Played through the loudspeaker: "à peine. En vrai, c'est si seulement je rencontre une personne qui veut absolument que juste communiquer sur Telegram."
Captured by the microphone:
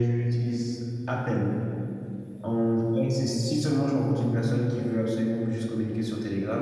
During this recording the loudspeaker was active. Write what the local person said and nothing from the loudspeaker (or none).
none